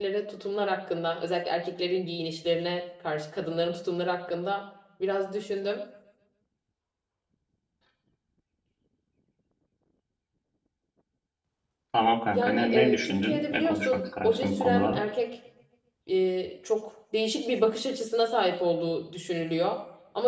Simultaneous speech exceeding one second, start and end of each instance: 12.3-15.0

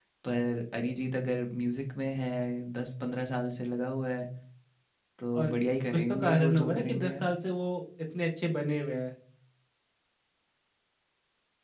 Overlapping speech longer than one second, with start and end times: 5.9-7.3

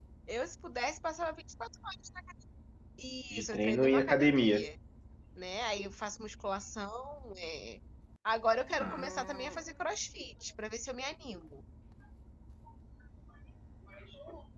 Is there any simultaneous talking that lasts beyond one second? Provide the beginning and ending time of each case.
3.4-4.7

